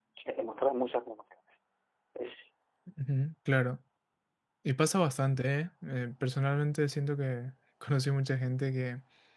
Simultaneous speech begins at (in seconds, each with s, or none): none